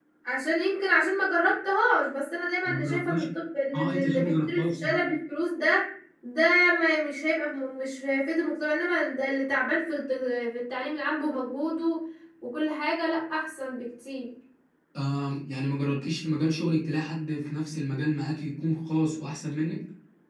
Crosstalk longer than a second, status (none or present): present